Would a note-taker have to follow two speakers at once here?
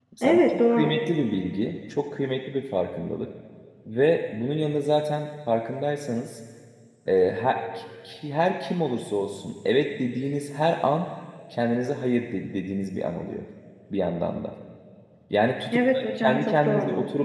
Yes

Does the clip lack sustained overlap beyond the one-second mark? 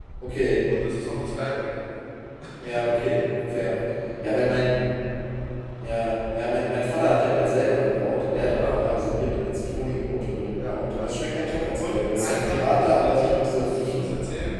No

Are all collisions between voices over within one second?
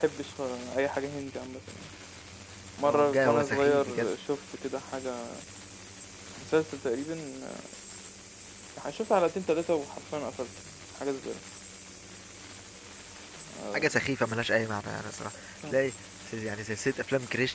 No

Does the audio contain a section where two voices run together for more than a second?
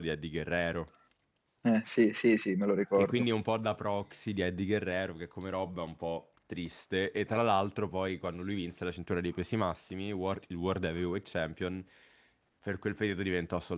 No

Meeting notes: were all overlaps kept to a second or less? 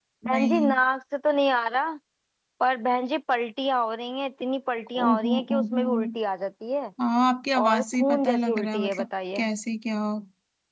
No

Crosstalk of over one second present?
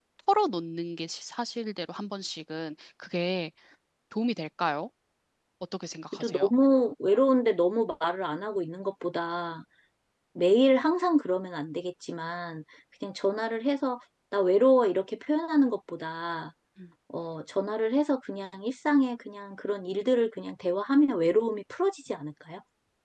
No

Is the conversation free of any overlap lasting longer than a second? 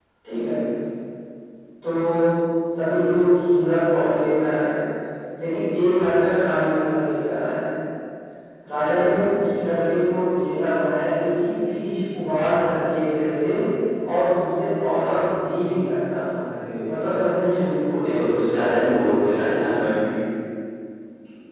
Yes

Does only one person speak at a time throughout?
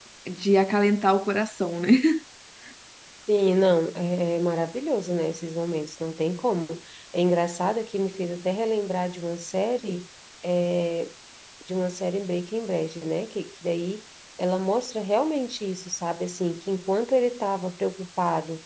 Yes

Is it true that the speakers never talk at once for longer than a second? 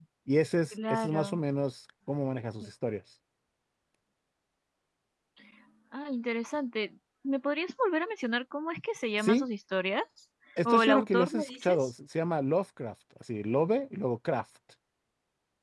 No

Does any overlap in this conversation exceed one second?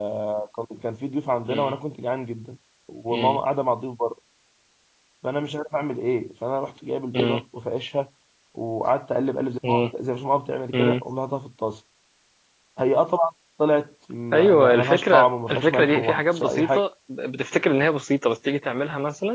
Yes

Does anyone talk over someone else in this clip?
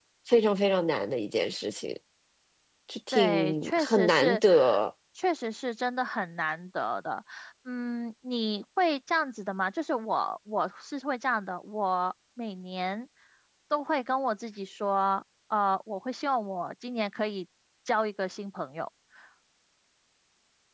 Yes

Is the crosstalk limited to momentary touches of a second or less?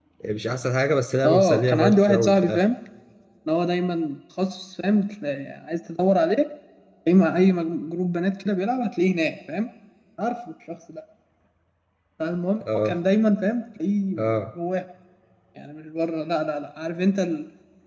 No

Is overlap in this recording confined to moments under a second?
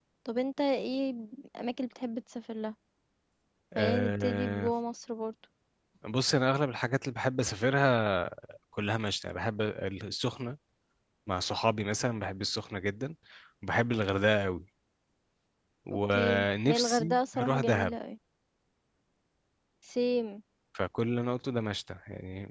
No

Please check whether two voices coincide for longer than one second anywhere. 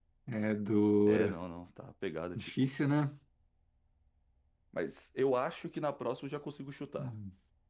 No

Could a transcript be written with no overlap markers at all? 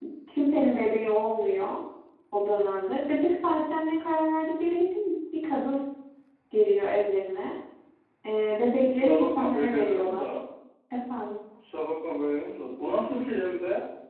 No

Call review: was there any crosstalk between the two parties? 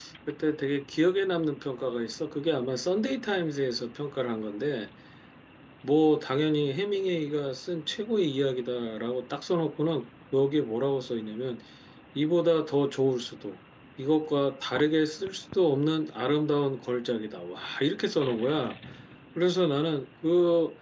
No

